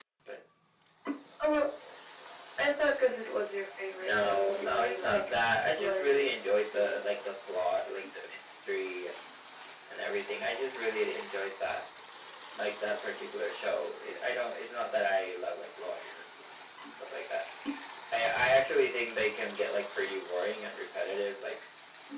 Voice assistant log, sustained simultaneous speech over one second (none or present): present